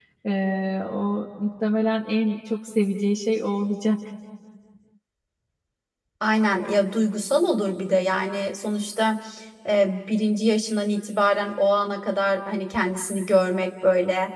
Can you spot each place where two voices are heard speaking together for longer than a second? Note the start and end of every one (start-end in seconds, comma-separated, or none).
none